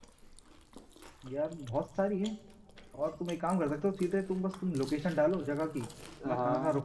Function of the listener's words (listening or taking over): listening